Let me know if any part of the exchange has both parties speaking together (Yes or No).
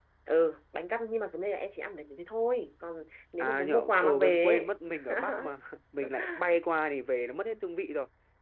Yes